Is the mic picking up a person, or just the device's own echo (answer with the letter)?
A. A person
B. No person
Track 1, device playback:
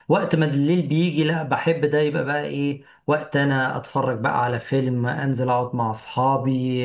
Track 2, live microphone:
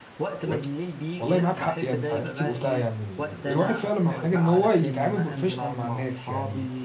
A